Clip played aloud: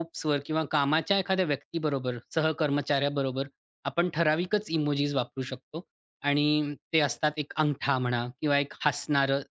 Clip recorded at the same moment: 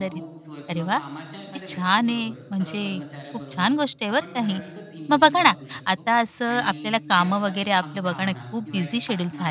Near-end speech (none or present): present